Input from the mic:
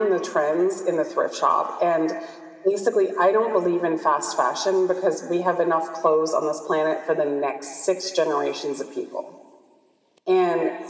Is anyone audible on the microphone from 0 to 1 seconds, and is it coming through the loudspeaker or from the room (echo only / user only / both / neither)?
echo only